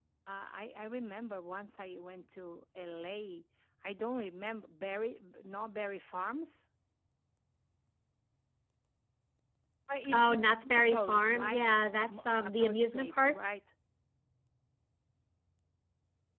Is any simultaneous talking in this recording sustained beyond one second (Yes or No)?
Yes